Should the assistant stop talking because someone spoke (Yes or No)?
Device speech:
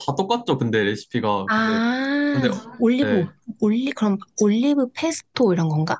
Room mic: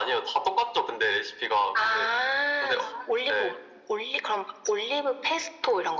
No